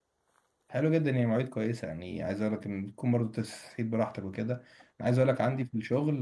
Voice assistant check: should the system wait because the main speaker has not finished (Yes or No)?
Yes